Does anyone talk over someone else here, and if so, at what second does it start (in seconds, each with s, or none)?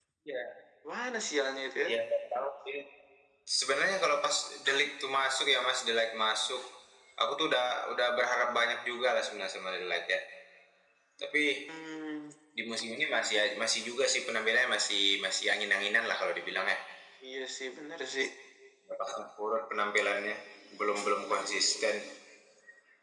none